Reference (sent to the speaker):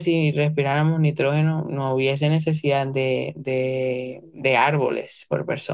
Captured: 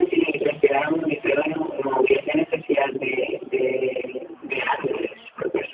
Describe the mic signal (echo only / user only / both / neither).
echo only